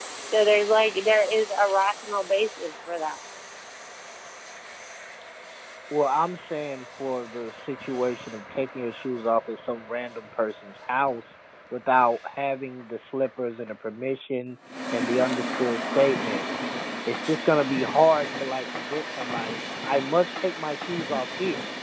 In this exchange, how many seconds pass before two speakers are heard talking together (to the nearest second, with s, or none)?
none